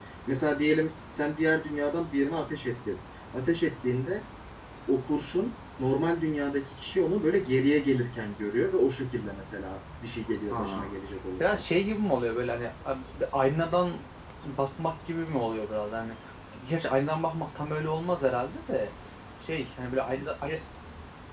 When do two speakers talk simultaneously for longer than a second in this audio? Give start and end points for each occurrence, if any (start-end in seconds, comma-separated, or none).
none